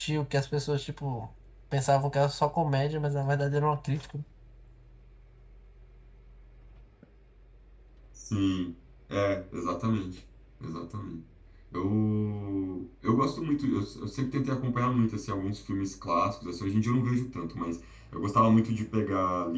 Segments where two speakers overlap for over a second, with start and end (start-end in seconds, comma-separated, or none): none